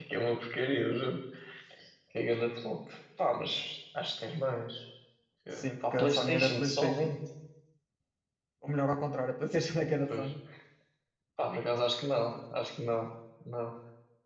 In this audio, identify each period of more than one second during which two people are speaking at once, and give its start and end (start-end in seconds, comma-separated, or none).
5.6-7.1